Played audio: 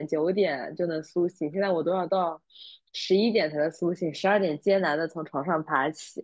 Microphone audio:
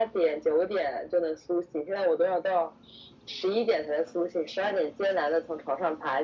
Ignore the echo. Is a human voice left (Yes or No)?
No